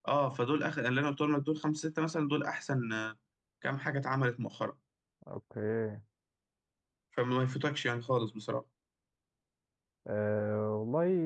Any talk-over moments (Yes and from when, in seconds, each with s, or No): No